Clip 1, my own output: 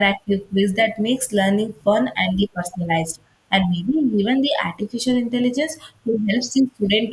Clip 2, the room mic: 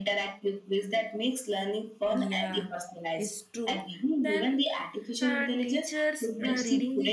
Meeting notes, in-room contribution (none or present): present